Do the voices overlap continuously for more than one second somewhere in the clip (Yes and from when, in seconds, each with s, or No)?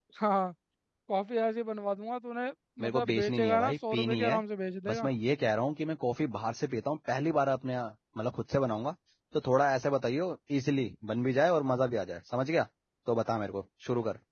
Yes, from 2.8 s